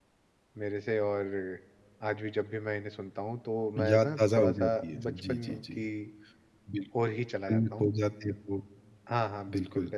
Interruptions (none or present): present